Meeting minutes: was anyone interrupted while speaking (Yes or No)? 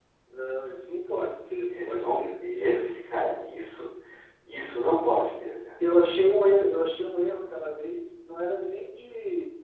Yes